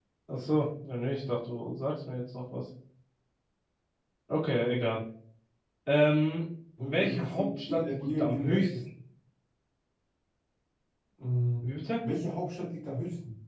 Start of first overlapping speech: 6.8 s

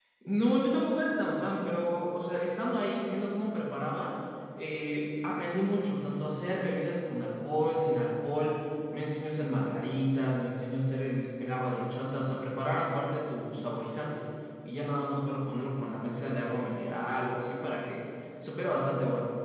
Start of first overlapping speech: none

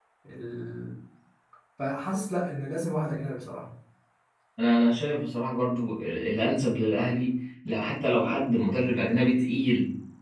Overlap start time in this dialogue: none

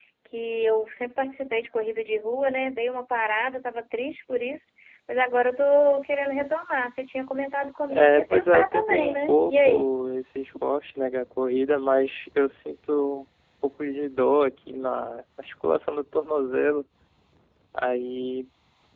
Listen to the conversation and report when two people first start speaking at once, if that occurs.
7.9 s

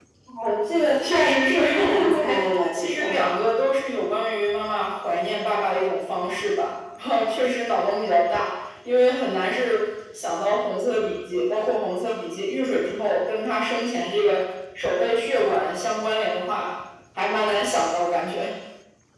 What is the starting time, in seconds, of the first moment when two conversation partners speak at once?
1.0 s

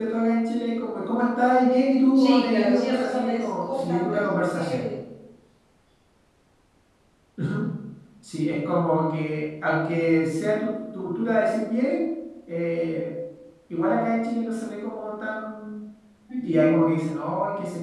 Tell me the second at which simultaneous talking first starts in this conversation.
2.2 s

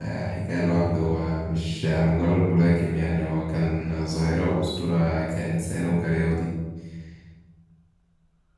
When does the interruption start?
none

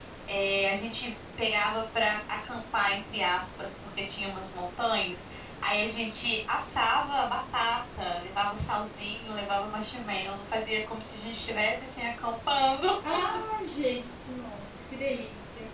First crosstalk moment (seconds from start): none

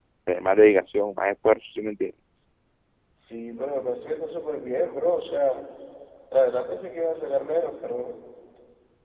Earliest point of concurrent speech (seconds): none

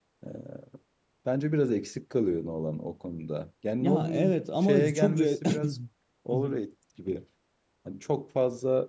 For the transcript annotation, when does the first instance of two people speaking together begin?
3.8 s

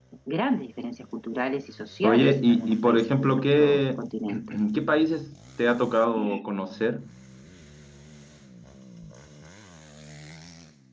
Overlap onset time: 2.0 s

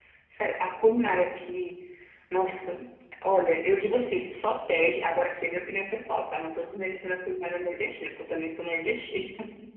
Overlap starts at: none

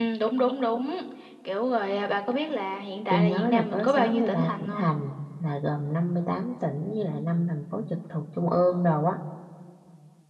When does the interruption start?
3.1 s

